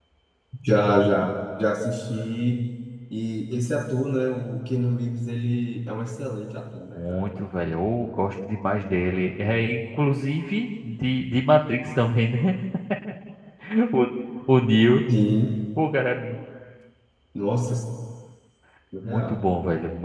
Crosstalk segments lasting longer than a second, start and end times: none

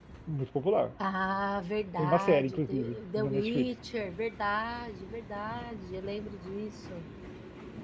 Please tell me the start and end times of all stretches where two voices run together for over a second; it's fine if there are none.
2.0-3.7

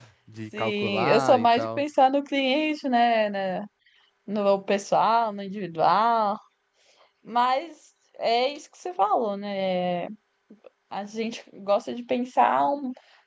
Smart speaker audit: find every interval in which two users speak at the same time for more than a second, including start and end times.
0.6-1.8

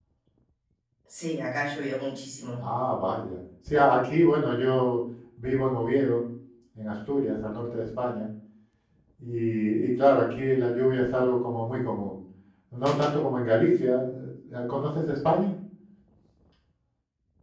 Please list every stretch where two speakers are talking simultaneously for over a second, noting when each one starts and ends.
none

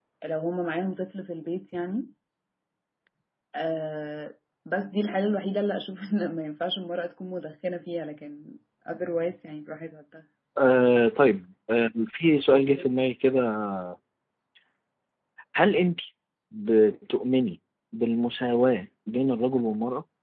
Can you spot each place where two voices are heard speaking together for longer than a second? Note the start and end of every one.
none

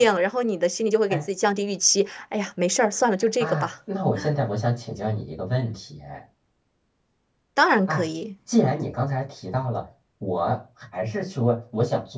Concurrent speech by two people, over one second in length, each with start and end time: none

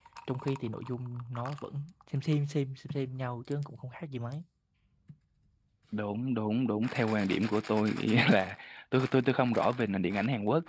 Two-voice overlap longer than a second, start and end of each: none

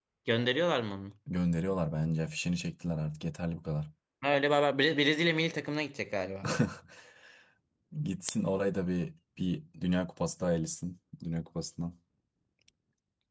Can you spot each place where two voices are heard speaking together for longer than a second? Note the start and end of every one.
none

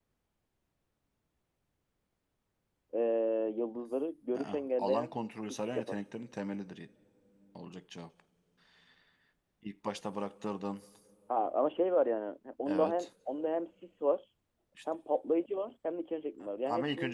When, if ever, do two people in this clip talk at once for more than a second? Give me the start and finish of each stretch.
4.3-6.0

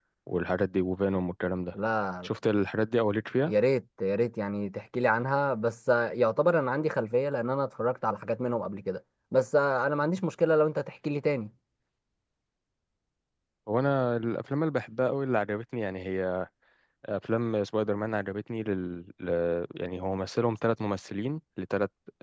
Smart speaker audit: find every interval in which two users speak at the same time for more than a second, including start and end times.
none

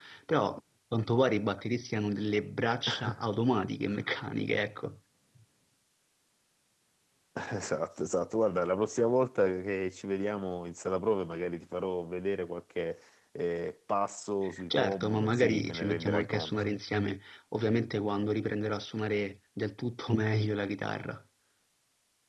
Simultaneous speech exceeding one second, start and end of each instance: 14.7-16.5

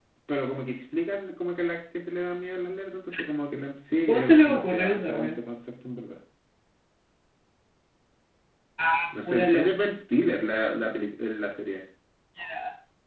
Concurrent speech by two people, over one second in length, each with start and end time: 4.1-5.4

